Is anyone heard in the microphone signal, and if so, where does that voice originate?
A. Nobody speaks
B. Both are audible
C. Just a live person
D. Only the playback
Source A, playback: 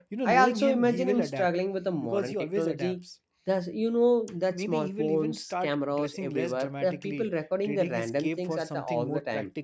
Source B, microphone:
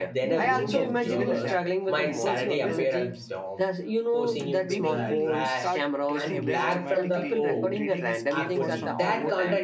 B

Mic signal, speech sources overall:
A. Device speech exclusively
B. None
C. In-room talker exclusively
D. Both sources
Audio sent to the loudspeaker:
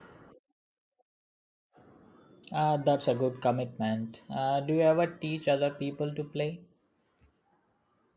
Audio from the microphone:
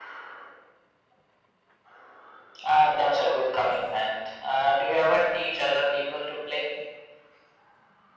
A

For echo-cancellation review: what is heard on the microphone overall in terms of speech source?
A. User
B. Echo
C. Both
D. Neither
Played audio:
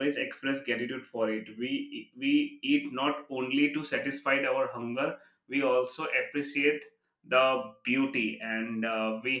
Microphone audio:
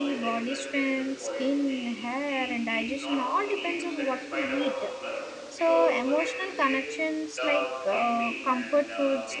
C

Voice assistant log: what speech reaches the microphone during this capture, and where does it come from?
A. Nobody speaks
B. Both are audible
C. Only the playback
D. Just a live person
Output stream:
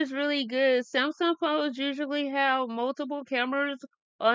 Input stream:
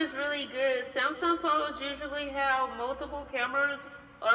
C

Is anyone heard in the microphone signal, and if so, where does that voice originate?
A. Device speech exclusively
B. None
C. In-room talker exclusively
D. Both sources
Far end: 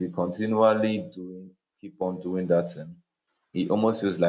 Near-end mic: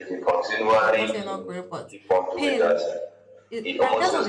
D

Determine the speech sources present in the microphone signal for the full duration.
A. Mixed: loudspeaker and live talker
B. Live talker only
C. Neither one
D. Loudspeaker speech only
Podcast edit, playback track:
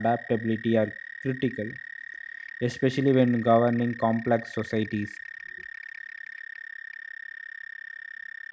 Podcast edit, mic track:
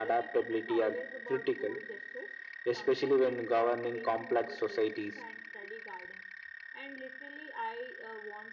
A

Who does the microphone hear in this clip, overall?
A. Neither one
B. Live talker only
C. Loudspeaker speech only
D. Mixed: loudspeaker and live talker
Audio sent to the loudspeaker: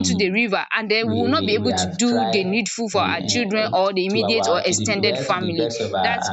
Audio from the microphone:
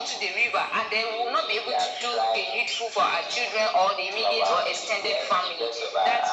C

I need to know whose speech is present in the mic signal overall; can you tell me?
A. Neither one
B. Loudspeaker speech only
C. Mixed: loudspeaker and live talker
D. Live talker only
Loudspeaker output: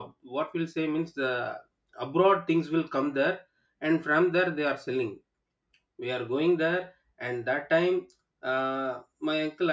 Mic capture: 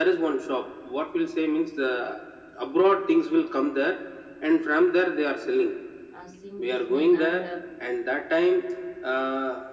C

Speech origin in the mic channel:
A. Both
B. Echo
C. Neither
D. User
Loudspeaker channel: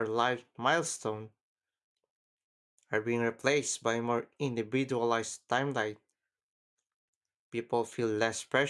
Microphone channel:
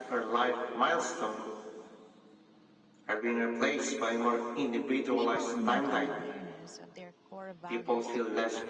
A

